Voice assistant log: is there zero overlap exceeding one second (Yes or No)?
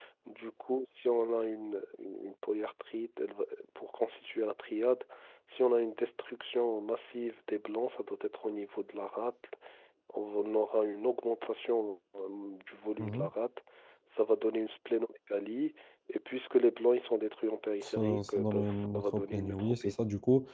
No